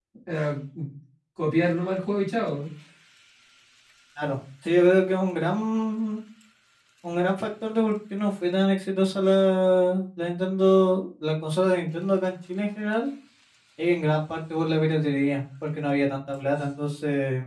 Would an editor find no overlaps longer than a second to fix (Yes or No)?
Yes